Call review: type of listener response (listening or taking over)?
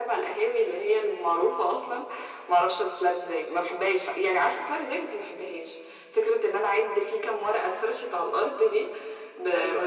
taking over